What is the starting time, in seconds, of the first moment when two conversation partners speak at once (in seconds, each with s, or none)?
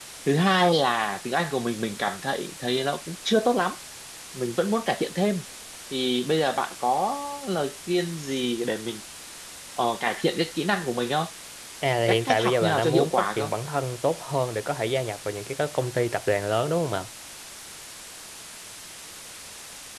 12.1 s